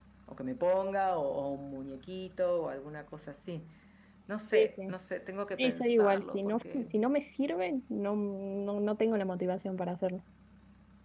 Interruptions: present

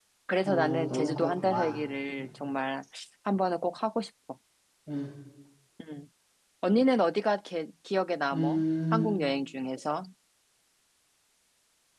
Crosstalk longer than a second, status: present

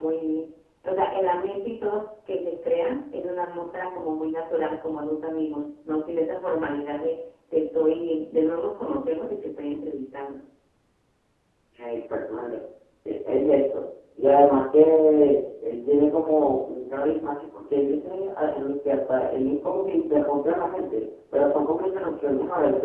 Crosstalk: none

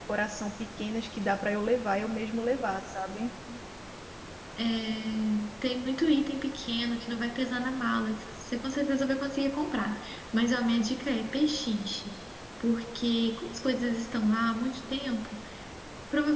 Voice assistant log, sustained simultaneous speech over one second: none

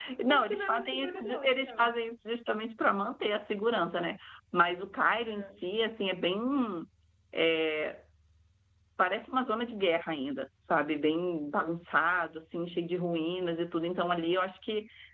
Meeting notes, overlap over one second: present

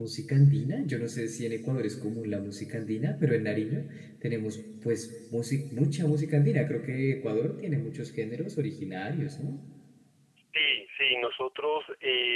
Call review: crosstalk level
none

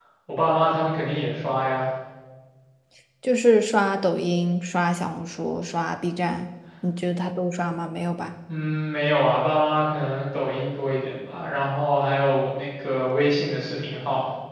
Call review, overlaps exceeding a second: none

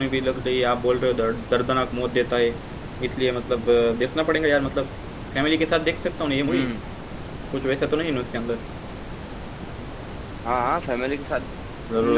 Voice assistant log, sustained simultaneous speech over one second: none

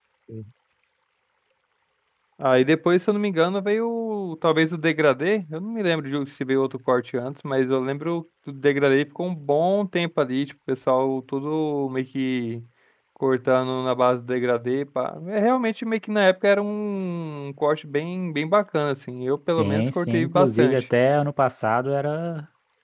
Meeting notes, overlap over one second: present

